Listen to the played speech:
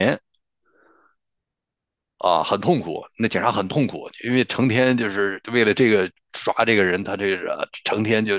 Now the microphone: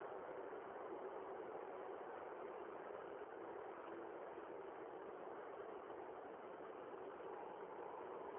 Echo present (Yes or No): No